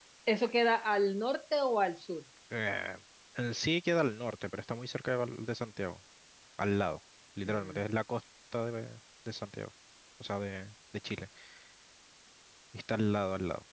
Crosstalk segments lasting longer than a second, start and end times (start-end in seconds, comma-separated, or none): none